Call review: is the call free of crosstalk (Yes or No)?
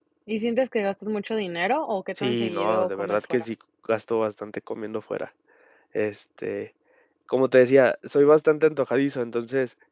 No